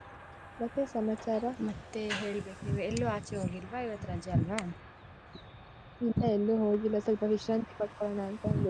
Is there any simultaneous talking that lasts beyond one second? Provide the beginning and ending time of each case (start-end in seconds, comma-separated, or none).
none